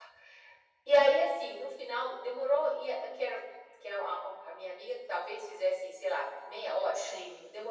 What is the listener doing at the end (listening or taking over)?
listening